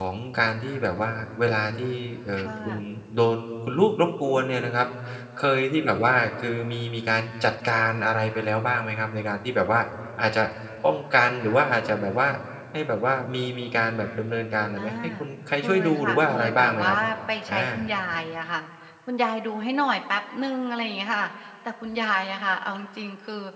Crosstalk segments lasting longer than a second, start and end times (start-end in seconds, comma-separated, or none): 15.6-17.0